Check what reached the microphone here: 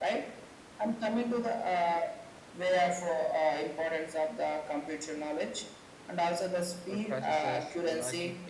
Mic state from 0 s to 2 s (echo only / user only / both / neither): echo only